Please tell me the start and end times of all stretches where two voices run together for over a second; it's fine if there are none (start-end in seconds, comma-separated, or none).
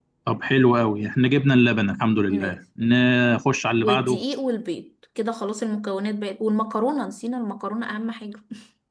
none